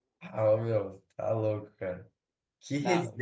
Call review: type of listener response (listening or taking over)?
listening